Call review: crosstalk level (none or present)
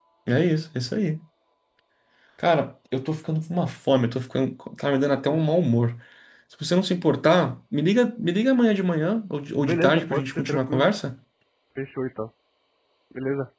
present